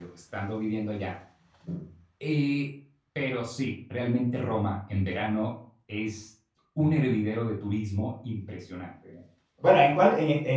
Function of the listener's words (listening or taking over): taking over